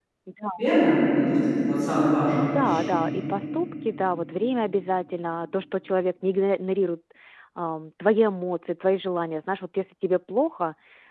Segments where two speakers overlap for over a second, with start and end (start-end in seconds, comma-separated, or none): none